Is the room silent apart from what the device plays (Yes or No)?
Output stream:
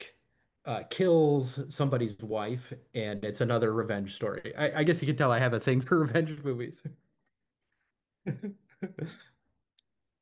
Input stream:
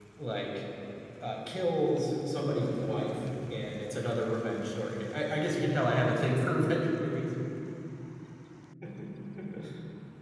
Yes